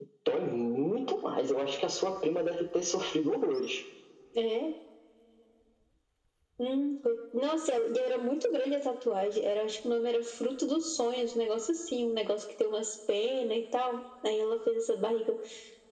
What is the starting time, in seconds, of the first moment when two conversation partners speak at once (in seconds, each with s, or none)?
none